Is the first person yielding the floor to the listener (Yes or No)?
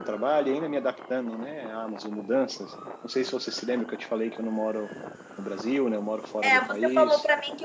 Yes